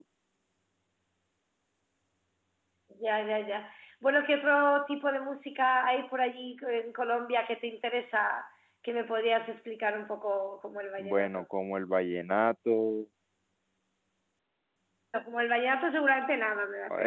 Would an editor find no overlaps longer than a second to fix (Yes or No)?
Yes